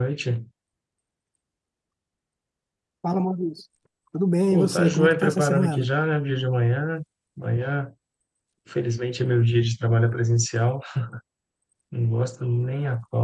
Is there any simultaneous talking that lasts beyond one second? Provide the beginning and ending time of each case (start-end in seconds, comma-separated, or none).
4.5-5.9